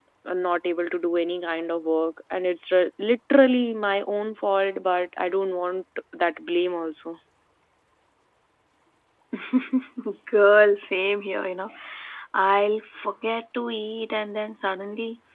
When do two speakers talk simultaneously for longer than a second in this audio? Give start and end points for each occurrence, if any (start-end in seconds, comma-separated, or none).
none